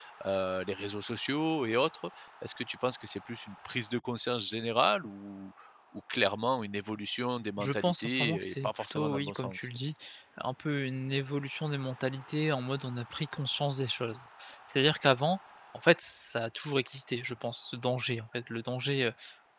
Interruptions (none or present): present